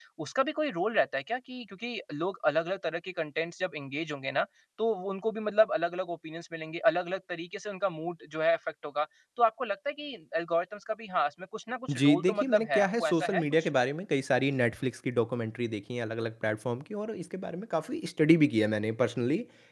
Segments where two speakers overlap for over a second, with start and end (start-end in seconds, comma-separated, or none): 11.9-13.7